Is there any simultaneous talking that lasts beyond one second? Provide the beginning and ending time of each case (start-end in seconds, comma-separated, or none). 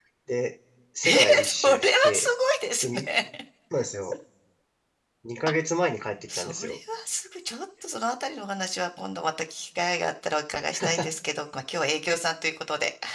1.0-2.3